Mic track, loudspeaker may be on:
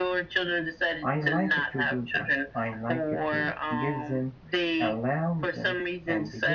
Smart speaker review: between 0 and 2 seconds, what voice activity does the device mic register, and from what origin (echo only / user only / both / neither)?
both